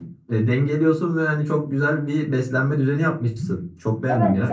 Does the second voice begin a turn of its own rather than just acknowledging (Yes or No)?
Yes